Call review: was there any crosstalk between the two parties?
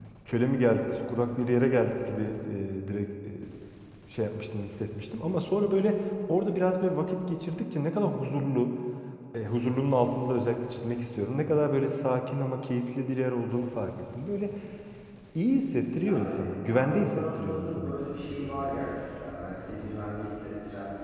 Yes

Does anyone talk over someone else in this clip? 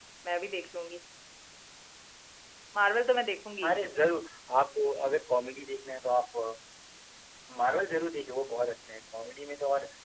No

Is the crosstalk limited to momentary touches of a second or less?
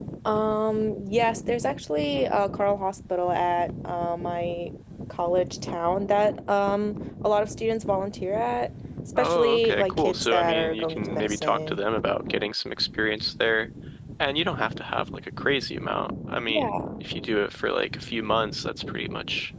No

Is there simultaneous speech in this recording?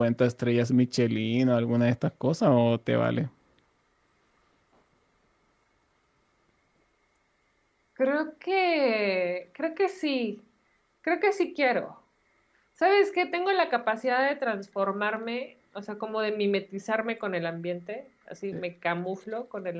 No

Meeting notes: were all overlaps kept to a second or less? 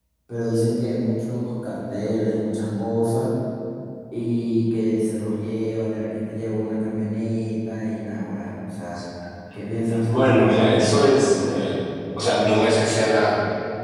No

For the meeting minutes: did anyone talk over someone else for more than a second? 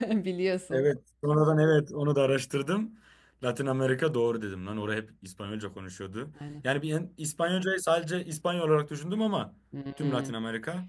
No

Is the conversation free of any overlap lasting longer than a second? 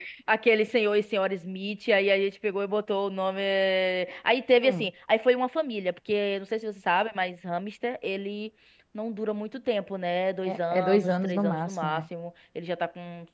No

